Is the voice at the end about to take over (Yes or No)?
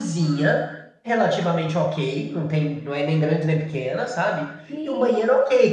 No